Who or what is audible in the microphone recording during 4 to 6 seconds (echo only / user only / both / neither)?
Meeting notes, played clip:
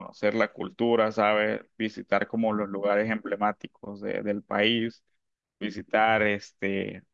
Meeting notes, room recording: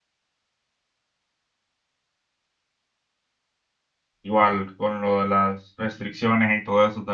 user only